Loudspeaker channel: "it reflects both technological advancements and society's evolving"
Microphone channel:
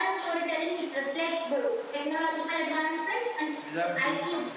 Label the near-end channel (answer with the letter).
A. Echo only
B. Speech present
B